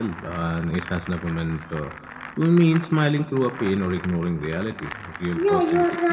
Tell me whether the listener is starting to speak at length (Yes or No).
Yes